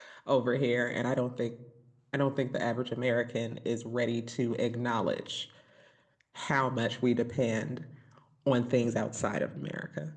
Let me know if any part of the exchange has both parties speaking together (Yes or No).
No